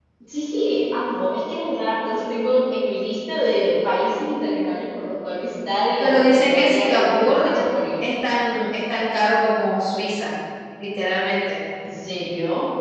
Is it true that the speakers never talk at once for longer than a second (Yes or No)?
No